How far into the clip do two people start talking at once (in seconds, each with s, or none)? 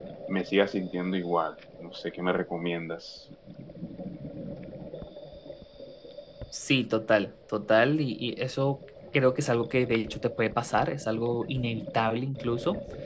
none